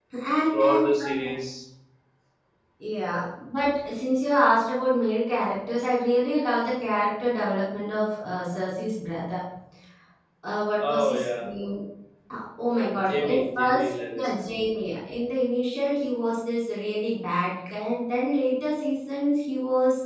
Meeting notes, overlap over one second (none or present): present